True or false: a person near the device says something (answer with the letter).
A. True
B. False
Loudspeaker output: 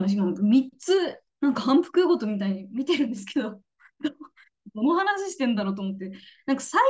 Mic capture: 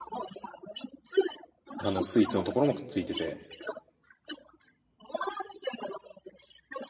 A